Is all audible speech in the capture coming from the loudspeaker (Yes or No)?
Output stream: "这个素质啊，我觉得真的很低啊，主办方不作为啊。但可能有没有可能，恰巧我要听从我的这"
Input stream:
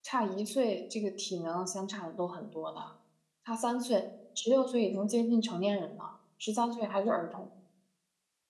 No